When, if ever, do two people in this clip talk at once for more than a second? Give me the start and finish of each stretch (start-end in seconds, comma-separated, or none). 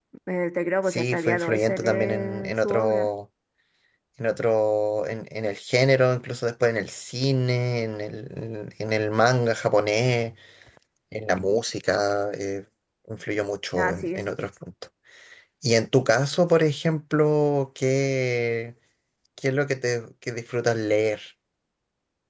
0.9-3.1